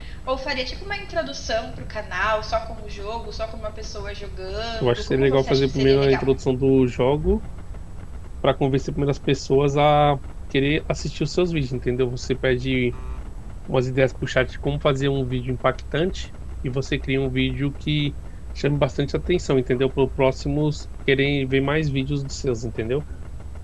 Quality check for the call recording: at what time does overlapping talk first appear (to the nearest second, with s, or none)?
5 s